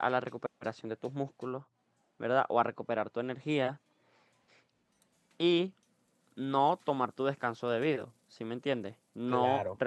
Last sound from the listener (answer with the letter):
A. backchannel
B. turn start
A